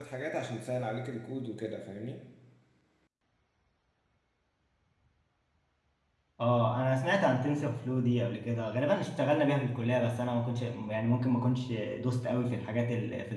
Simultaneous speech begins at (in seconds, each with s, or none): none